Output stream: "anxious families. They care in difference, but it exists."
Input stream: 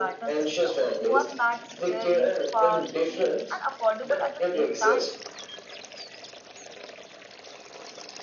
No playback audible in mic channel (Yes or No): No